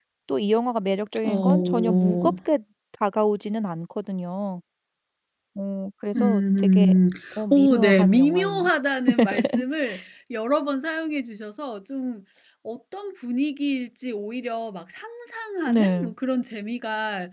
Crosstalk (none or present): present